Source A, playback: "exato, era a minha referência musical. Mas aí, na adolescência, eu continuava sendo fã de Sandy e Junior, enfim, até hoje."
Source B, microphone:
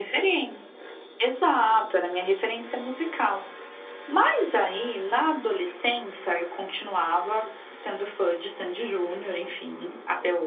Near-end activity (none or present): none